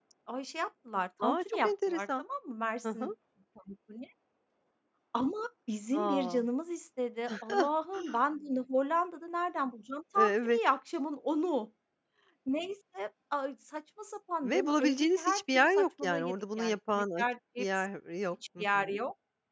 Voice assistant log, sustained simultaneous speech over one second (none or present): present